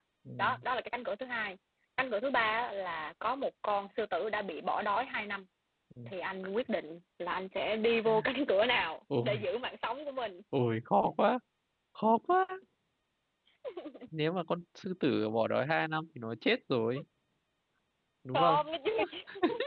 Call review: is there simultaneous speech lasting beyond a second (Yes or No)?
No